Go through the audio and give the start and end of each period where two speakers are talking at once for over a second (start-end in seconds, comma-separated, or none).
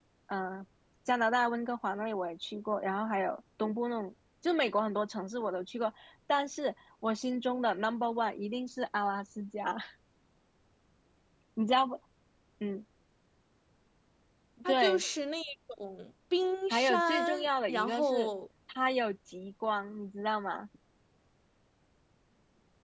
16.7-18.3